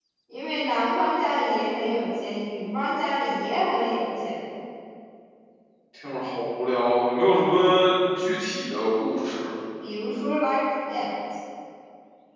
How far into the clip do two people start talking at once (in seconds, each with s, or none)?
none